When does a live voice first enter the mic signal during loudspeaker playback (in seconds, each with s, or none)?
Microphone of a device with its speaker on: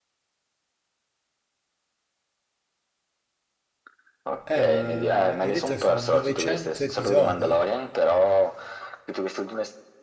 4.4 s